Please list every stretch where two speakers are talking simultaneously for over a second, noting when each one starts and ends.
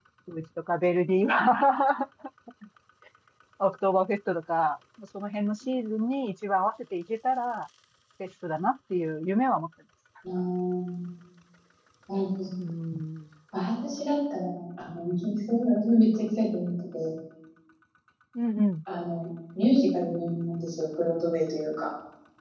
none

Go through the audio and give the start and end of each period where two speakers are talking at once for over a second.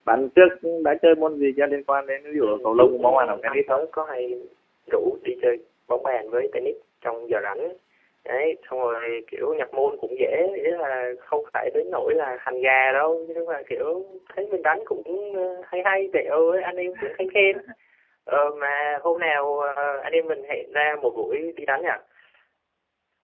2.4-3.8

